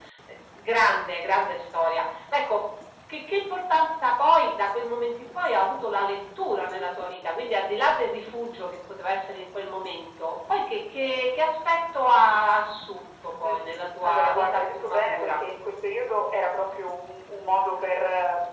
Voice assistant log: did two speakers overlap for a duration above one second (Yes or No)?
Yes